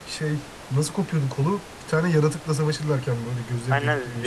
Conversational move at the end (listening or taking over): taking over